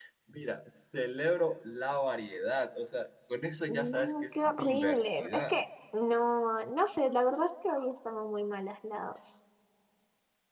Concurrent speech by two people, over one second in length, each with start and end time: 3.7-5.6

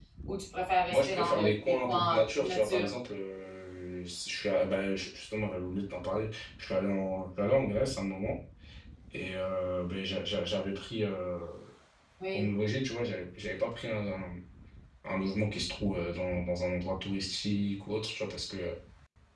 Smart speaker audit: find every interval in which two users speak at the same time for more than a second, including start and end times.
0.9-2.9

